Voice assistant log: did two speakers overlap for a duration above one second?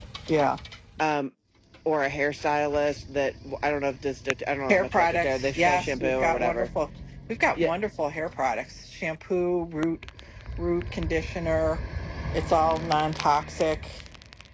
Yes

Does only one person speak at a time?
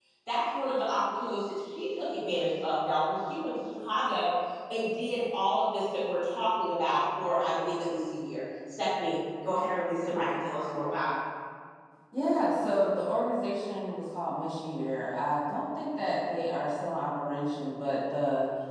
Yes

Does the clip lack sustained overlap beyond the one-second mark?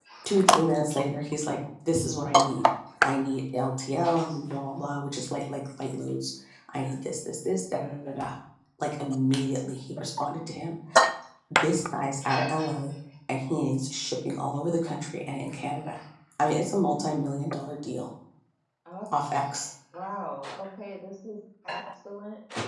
Yes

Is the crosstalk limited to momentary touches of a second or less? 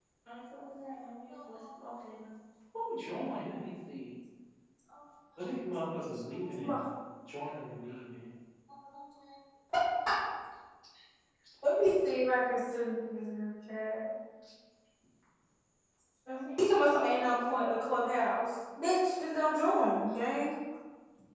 Yes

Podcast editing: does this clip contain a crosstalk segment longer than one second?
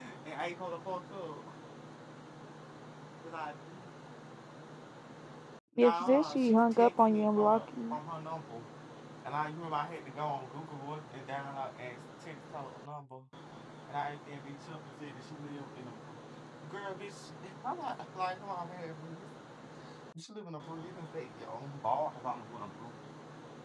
Yes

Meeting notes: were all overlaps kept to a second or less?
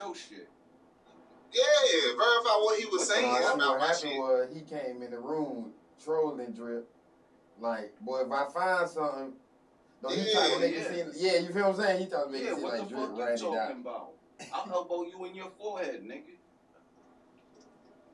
No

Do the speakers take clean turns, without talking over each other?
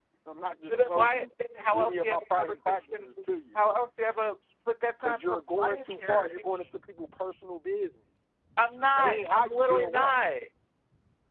No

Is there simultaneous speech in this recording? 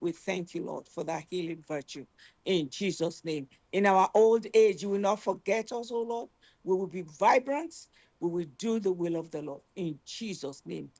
No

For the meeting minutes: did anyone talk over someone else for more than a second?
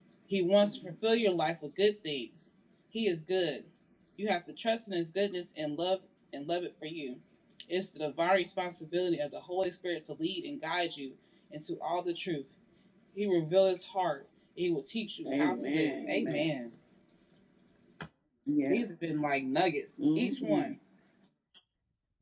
Yes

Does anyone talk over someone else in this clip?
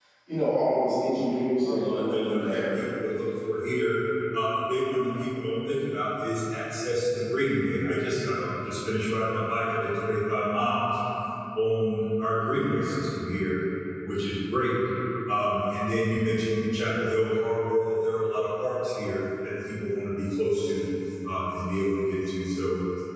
Yes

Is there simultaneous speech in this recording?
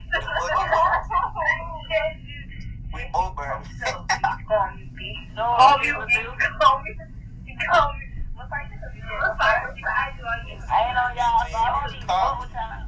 Yes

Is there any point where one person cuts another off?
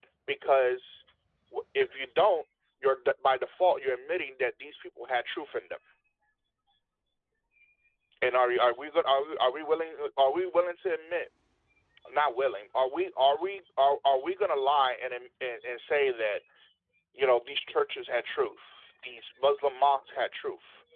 No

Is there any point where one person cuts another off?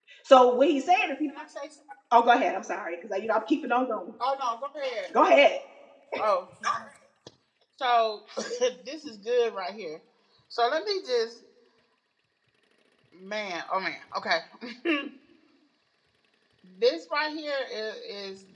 No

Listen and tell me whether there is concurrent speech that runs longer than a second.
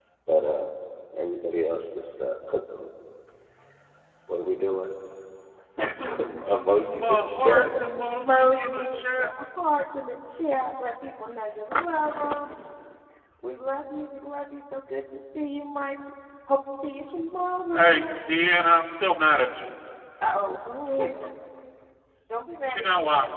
Yes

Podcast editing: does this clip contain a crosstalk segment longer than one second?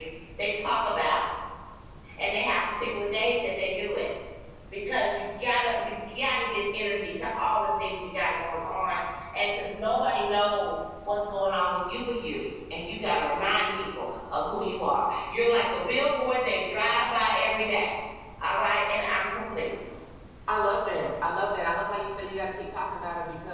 No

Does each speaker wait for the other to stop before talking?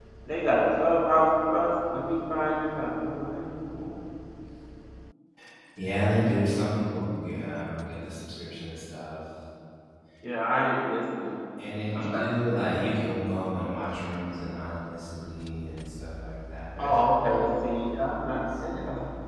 No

